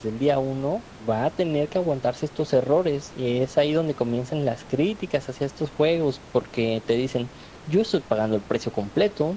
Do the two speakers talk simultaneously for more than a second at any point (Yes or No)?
No